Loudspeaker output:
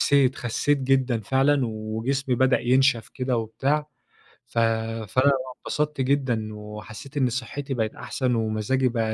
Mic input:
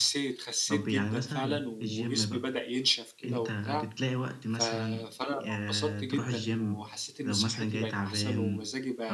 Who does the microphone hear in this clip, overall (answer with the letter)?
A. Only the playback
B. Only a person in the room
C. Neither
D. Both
D